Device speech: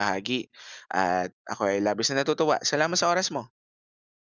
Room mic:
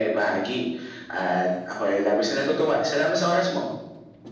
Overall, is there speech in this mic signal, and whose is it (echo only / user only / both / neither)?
echo only